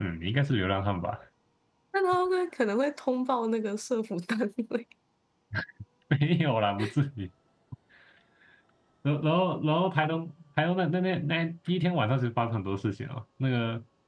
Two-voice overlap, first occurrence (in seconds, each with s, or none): none